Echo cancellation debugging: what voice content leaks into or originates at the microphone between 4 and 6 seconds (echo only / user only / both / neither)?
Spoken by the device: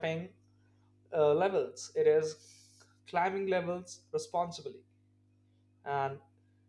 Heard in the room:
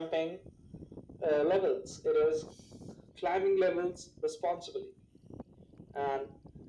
echo only